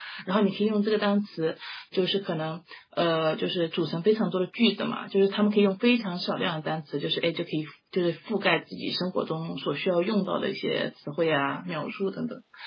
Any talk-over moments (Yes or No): No